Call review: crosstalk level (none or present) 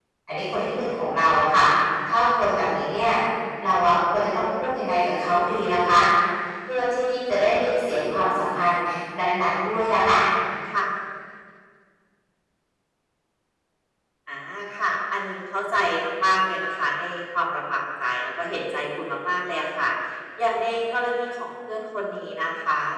none